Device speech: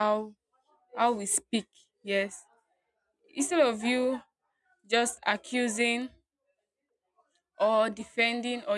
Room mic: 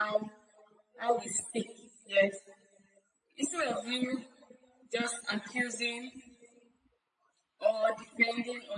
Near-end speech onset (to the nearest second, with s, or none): none